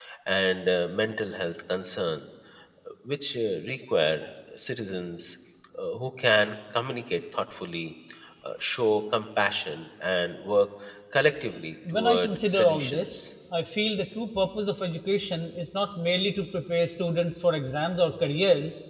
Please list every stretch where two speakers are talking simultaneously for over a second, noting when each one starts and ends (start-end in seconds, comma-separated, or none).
11.9-13.1